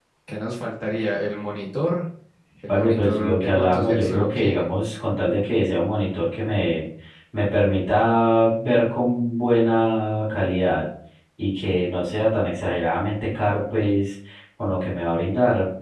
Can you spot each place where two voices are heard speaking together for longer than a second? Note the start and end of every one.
2.7-4.7

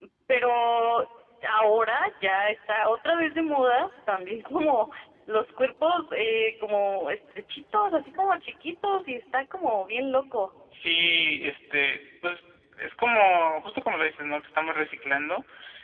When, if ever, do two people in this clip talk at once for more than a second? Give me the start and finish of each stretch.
none

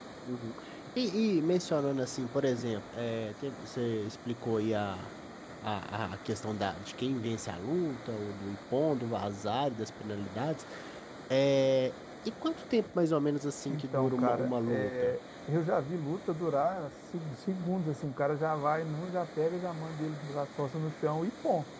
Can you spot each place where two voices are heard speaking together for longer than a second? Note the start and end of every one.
13.7-15.1

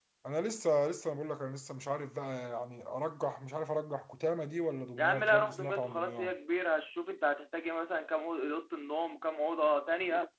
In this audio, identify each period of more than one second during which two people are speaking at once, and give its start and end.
5.0-6.3

